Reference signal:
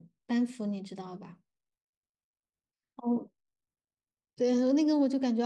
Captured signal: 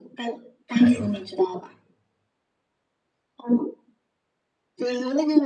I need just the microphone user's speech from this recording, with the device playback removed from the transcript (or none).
还有，